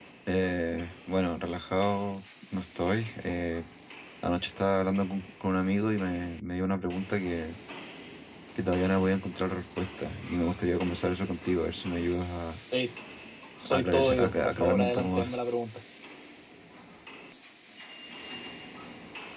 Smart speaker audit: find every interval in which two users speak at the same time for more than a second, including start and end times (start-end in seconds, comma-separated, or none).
13.7-15.4